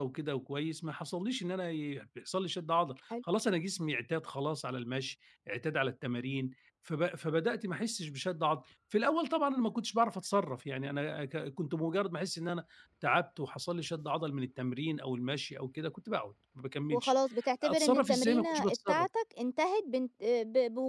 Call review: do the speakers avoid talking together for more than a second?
No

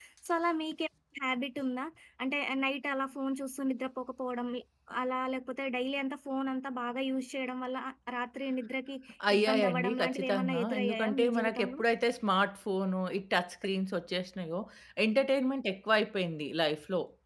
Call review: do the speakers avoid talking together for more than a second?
No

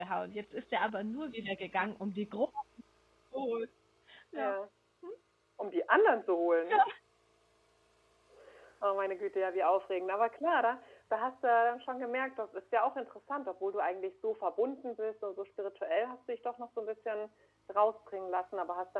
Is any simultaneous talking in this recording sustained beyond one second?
No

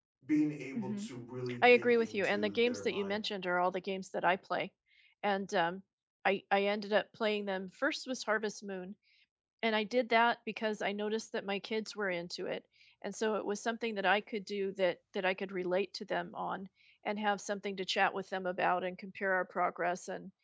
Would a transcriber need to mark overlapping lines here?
Yes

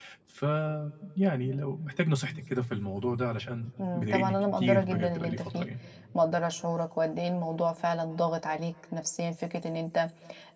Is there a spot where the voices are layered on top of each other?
Yes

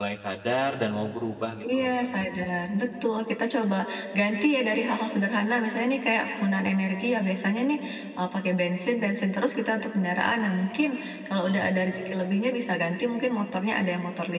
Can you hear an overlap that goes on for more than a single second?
No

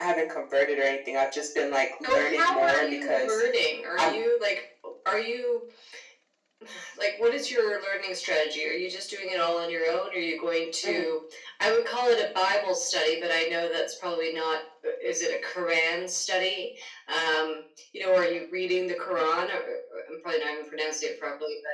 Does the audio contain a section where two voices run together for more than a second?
Yes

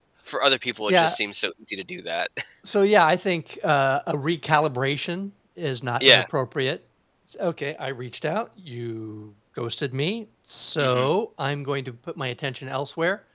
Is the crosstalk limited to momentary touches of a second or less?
Yes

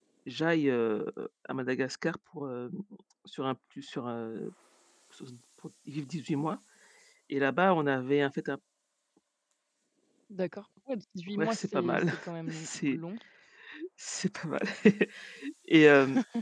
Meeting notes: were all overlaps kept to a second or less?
No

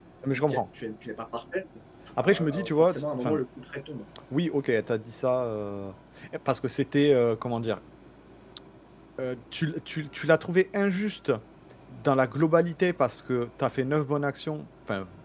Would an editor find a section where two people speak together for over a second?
Yes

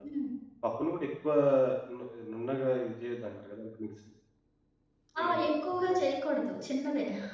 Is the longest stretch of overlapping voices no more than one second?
Yes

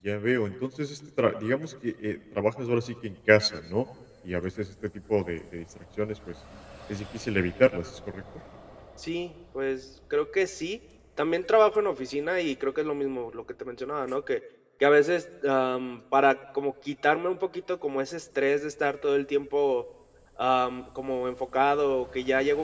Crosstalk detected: No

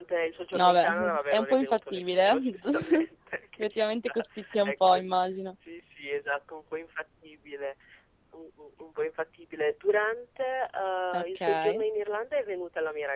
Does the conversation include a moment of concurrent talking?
Yes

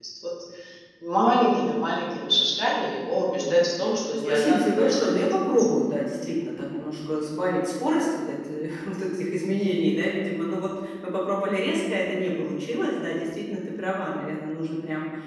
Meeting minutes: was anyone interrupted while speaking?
Yes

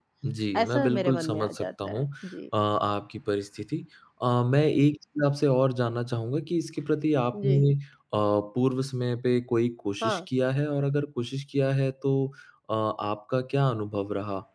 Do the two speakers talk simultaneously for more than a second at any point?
Yes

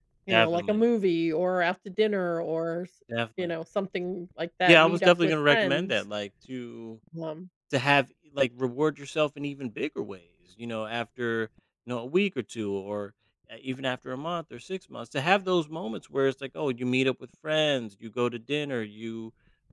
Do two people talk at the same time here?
Yes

